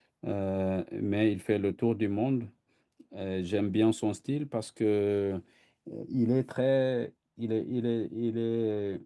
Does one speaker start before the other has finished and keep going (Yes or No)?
No